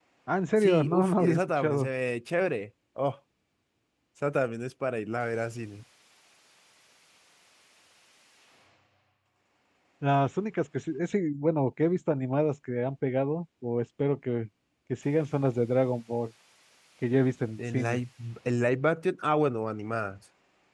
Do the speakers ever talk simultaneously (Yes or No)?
Yes